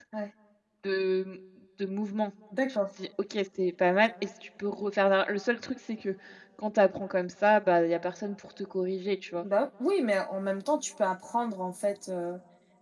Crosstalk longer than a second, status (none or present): none